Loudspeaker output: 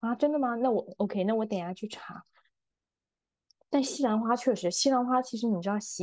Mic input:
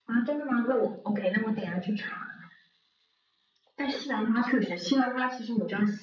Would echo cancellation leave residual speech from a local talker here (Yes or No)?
No